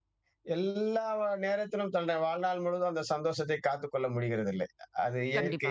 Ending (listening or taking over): listening